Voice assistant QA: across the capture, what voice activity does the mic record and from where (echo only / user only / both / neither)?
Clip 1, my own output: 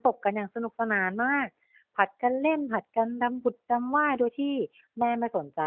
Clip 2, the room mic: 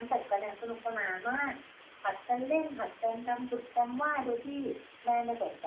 echo only